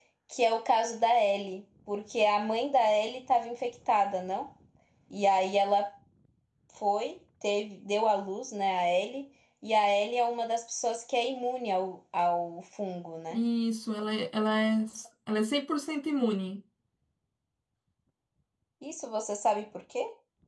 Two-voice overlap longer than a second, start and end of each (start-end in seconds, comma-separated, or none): none